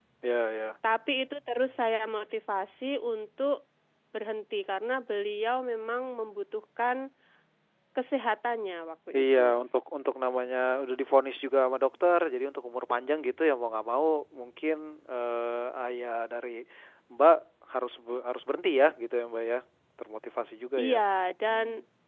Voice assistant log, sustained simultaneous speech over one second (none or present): none